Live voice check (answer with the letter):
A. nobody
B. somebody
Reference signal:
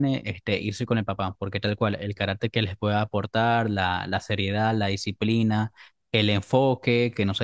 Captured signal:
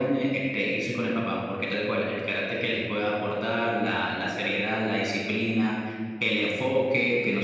A